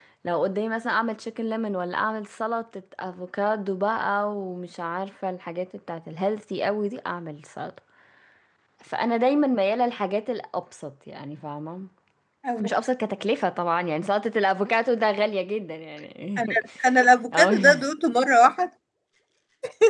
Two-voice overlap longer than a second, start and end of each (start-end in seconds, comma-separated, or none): none